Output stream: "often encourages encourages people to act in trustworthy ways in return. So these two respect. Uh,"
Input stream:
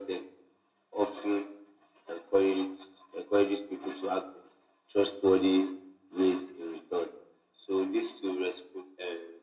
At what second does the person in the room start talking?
none

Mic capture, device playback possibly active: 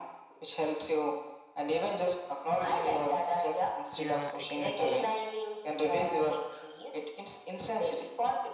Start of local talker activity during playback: 3.9 s

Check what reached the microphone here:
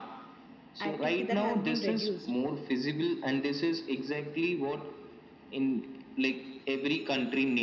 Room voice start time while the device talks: 0.8 s

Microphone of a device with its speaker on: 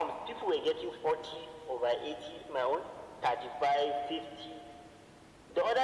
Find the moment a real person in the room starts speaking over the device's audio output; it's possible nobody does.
none

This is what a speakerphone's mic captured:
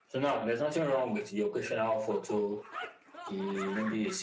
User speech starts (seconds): none

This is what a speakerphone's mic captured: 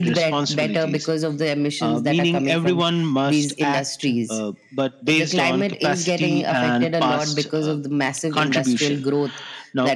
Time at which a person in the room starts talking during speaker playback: none

